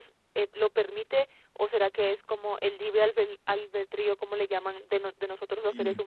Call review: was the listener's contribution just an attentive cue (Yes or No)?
Yes